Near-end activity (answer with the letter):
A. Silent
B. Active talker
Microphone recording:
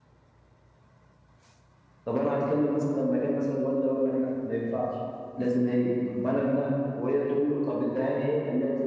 B